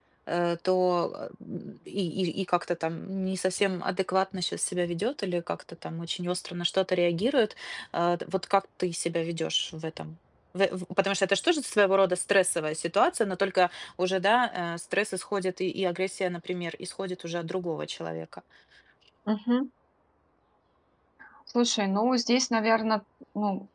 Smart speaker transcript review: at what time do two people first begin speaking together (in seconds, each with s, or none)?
none